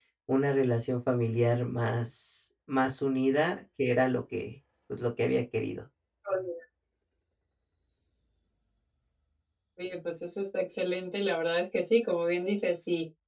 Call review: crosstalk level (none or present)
none